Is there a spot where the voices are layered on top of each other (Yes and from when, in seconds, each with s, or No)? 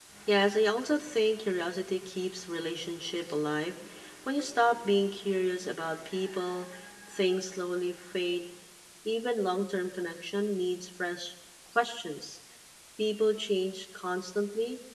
No